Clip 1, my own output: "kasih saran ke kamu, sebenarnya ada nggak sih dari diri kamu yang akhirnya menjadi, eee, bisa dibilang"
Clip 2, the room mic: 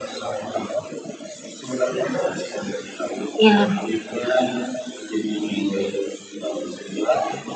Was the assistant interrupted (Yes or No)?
Yes